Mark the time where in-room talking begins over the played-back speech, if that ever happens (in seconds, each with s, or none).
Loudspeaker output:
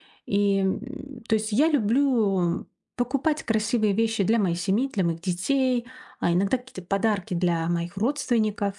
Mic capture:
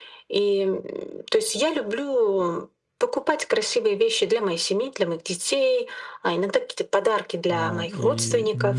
7.5 s